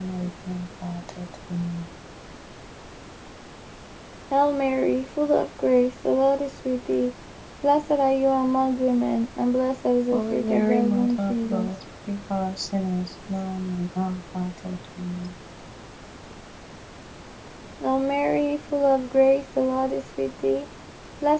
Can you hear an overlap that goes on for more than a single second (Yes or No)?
Yes